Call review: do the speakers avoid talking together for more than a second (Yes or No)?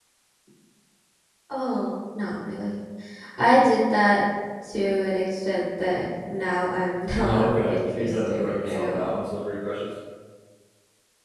No